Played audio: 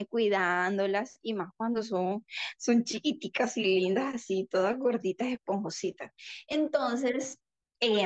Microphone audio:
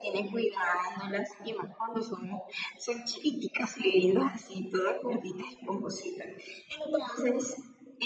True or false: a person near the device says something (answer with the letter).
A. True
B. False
B